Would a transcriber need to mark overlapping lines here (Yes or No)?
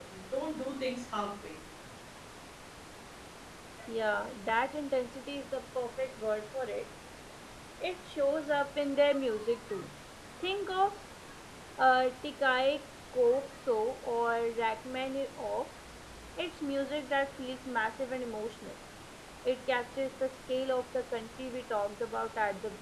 No